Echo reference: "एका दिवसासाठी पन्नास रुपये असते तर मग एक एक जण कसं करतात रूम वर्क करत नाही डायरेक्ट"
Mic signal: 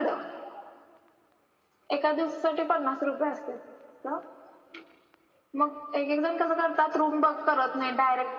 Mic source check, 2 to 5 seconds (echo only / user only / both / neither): echo only